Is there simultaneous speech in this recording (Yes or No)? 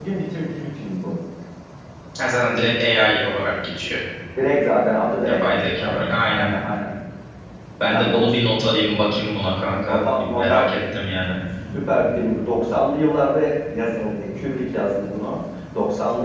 Yes